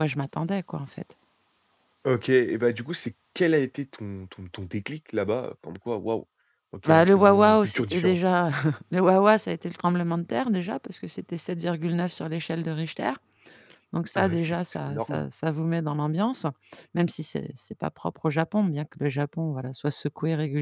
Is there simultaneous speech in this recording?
Yes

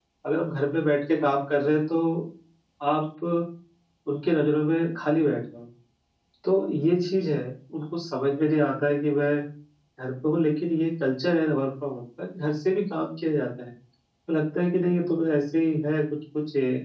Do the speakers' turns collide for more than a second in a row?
No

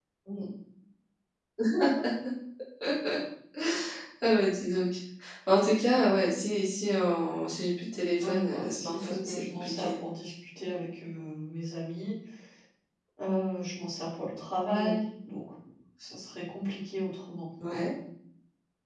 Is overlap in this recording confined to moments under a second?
No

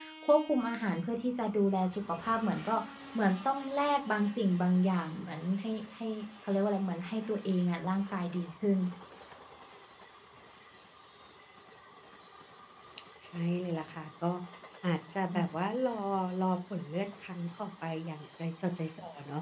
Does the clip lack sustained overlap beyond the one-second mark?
Yes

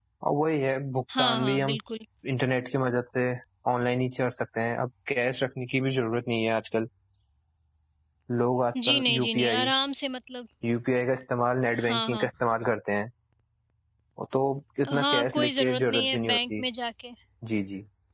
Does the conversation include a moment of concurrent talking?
Yes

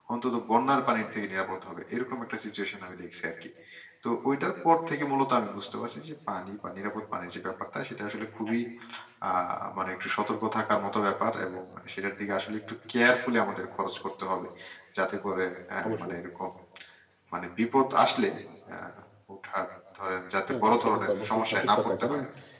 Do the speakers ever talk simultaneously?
Yes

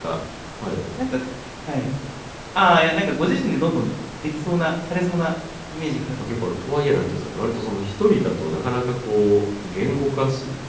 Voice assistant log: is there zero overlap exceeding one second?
Yes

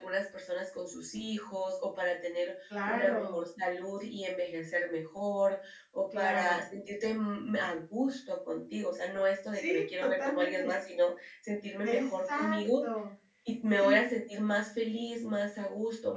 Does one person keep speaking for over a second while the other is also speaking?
Yes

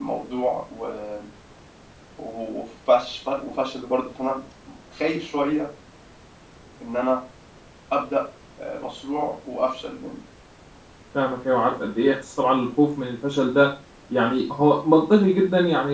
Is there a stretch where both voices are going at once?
No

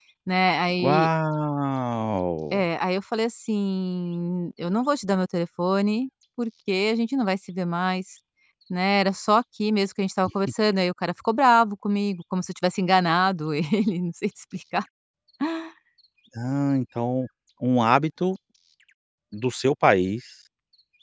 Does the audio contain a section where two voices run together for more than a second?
No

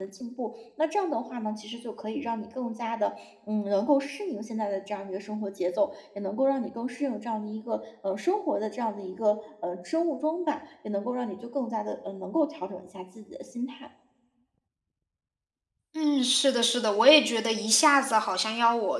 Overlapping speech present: No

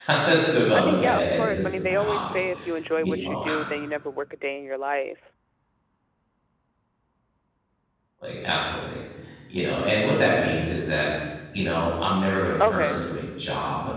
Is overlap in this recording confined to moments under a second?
No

